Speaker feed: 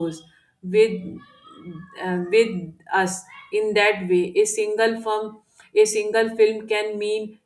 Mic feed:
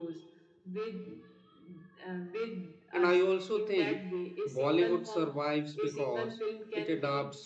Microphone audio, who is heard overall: both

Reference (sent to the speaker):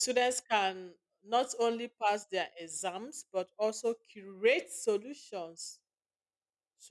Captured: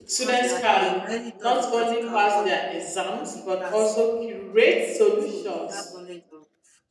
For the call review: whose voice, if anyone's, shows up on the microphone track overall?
both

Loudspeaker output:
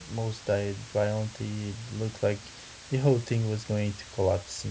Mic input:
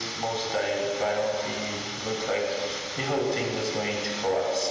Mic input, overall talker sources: echo only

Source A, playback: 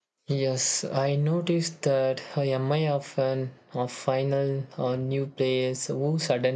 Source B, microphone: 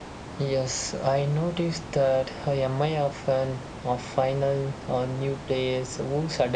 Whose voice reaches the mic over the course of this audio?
echo only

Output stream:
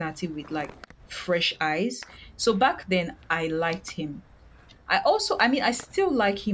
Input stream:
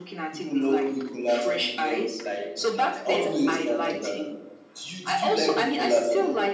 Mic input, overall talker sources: both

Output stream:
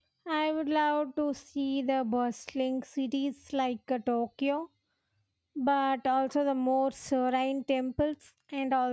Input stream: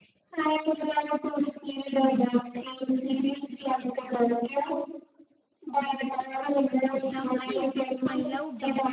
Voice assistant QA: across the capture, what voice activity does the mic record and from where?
both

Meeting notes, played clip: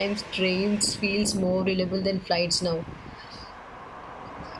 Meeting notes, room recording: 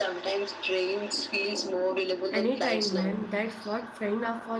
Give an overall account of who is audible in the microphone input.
both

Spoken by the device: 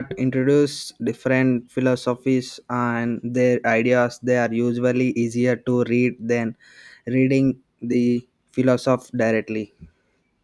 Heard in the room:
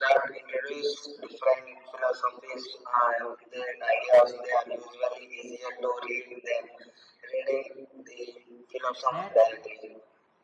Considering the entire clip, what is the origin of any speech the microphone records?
both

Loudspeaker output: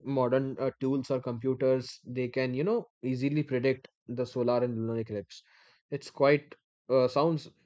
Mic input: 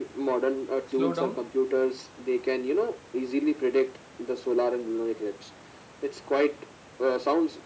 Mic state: both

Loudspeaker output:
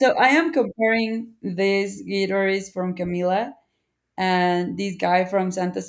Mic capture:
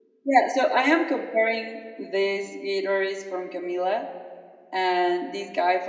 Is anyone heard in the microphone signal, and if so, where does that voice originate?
echo only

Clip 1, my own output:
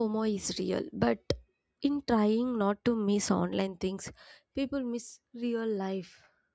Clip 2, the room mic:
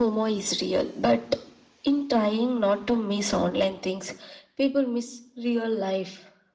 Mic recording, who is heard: echo only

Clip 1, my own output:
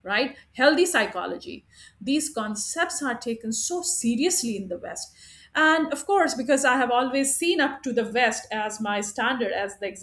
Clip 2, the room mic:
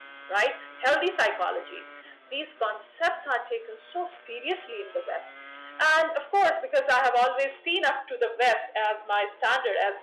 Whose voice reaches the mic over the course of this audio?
echo only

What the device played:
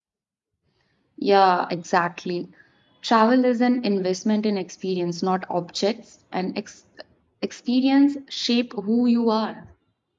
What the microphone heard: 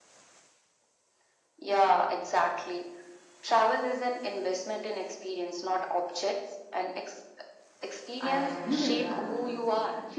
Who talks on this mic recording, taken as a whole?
both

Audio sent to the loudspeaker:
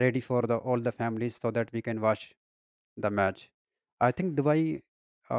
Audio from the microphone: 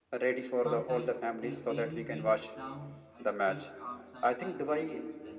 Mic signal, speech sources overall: both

